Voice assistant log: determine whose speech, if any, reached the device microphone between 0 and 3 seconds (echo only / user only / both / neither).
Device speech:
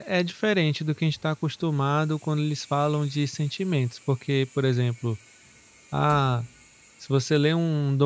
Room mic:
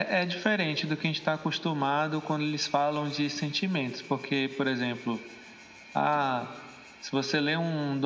echo only